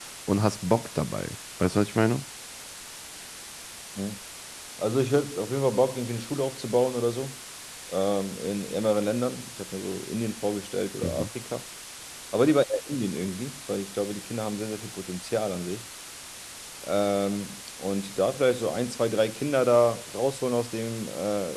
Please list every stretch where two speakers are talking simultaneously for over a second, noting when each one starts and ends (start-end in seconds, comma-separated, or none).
none